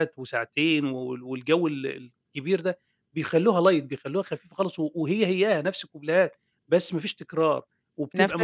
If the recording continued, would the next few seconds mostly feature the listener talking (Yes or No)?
Yes